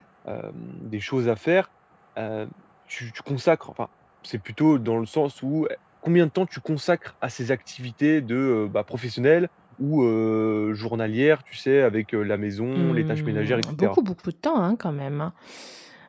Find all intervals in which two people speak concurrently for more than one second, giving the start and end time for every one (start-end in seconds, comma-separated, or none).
12.8-14.0